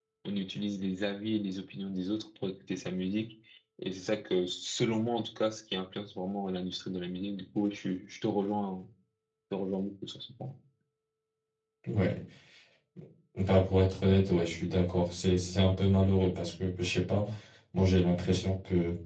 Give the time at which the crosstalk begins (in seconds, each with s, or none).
none